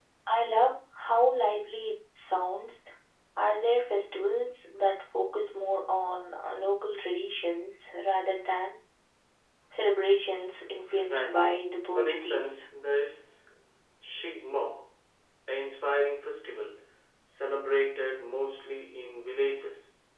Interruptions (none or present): present